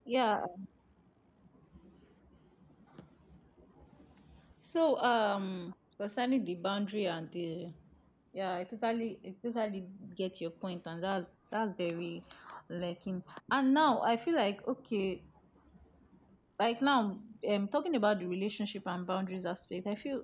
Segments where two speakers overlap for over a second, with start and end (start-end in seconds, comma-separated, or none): none